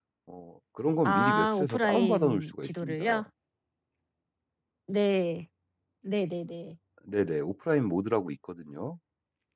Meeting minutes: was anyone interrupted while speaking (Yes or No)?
Yes